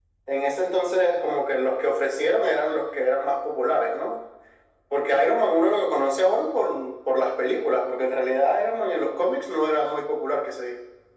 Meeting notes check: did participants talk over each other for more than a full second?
No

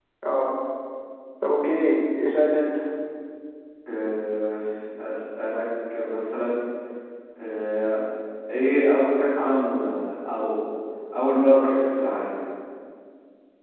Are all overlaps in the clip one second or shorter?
Yes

